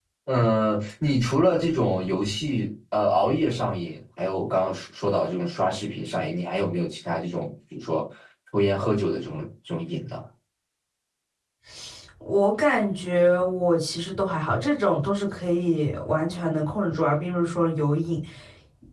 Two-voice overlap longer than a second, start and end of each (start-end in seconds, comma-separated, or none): none